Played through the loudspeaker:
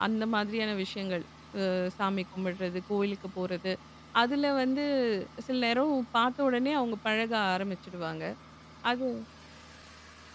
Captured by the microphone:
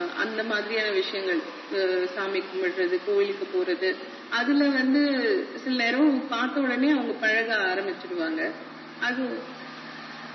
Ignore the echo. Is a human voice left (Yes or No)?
No